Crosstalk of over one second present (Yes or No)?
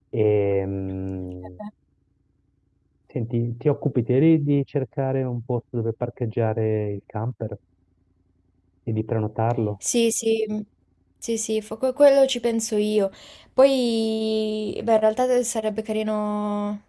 No